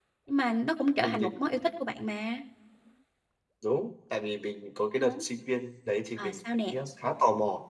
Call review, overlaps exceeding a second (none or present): none